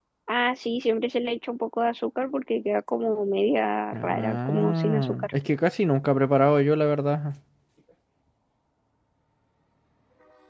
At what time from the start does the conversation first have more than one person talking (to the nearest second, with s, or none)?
4 s